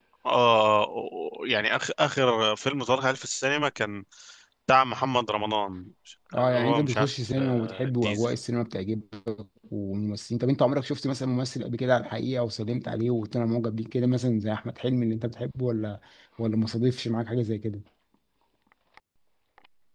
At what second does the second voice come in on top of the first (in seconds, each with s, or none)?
6.3 s